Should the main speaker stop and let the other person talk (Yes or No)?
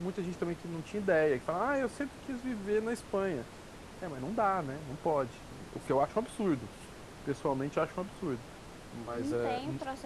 Yes